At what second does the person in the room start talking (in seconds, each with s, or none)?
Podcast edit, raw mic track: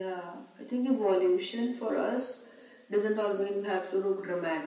none